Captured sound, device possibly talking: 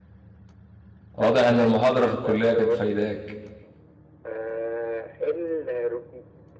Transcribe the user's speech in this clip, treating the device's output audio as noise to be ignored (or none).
واضح ان المحاضرة في الكلية كانت فايداك